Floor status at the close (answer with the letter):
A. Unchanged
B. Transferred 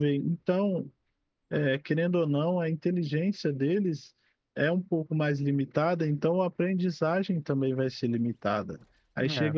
A